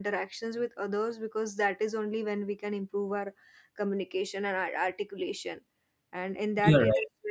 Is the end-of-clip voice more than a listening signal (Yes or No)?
No